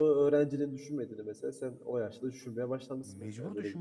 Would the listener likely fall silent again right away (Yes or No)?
No